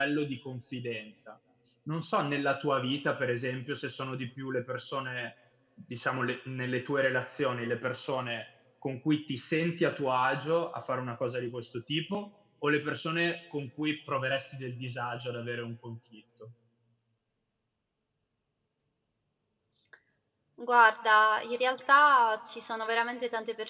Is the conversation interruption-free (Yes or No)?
Yes